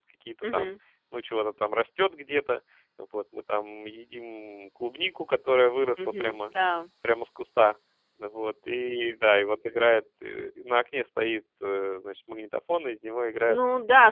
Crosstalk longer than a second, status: none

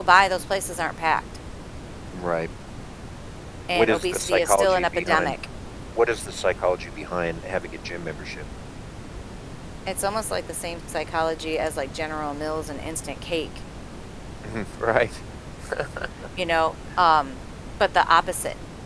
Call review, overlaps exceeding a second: present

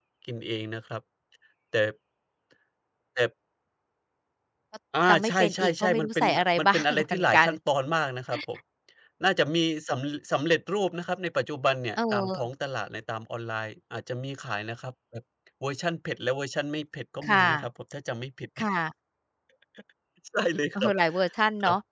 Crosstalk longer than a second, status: present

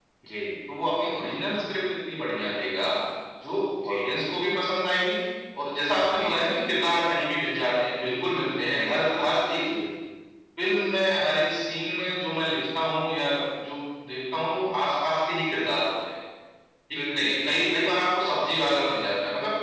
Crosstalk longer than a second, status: none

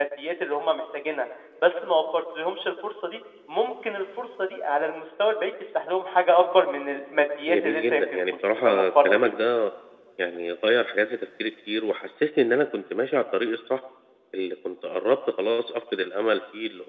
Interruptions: present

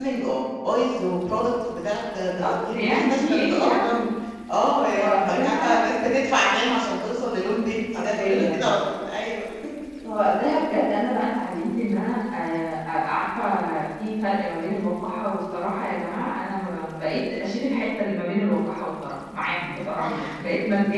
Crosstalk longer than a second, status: present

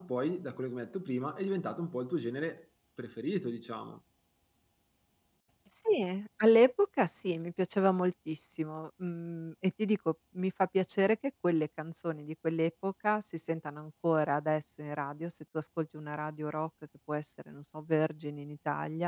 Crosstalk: none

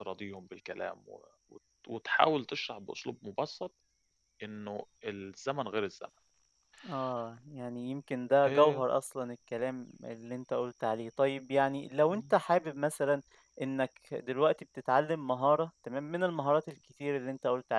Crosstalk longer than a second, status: none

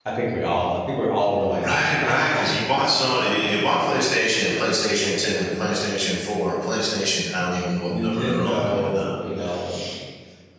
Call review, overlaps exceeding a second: present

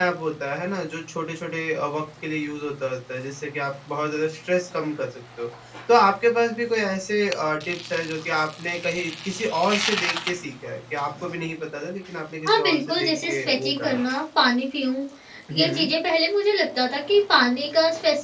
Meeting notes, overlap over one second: present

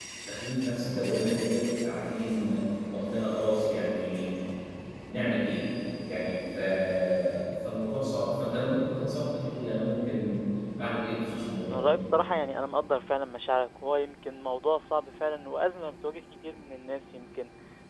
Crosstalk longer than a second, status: none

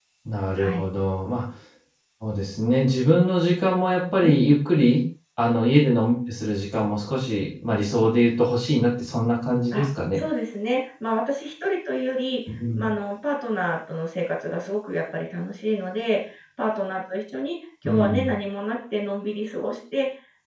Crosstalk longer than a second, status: none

